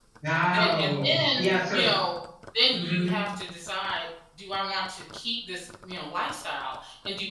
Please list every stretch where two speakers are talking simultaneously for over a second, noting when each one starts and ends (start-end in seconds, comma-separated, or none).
0.5-1.8